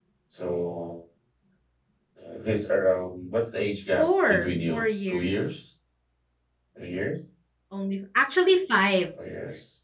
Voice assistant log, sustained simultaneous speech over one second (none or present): present